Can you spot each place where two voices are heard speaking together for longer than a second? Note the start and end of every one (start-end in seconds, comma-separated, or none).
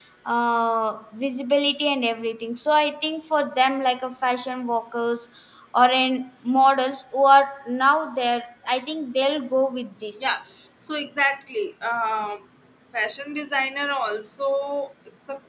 none